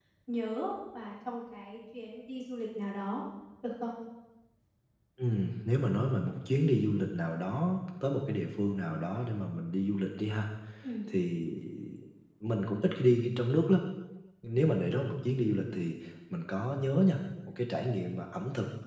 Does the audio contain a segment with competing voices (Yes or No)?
No